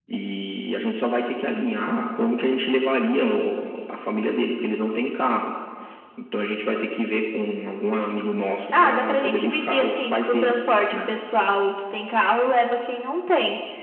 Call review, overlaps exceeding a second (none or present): present